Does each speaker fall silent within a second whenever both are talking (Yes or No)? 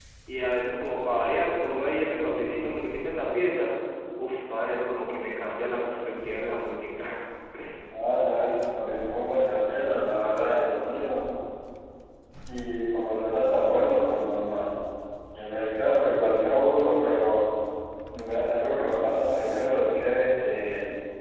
Yes